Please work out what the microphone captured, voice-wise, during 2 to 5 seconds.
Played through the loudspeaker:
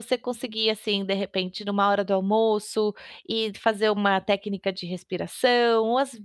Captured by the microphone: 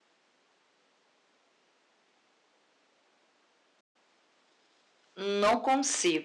neither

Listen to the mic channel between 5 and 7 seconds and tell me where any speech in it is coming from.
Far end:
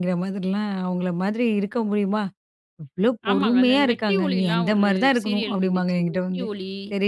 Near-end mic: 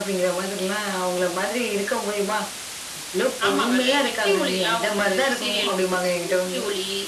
echo only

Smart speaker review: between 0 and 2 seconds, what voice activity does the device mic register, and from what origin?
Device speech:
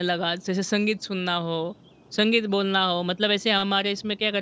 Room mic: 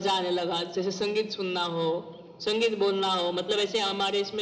echo only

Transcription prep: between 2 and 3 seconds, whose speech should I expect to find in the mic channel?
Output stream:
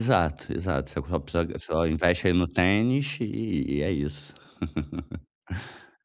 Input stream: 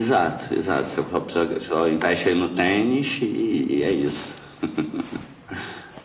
echo only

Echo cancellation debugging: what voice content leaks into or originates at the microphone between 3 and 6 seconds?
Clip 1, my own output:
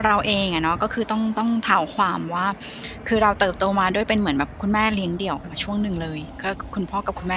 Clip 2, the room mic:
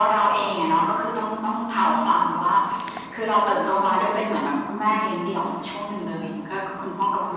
both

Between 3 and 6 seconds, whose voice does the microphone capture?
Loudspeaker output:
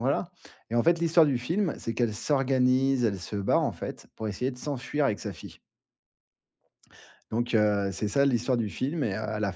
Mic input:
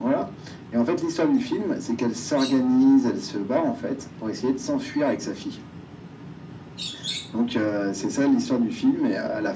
echo only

